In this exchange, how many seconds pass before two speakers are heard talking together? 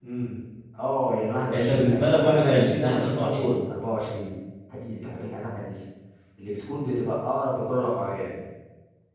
1.5 s

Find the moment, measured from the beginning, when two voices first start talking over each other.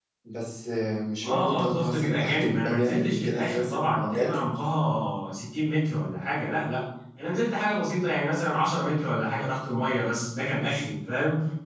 1.2 s

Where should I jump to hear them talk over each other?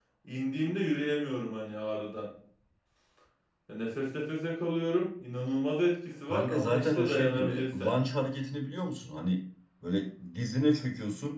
6.3 s

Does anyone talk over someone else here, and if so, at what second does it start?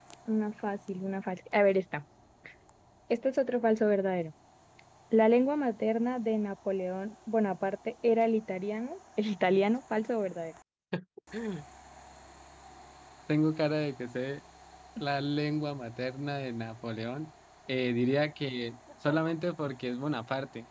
none

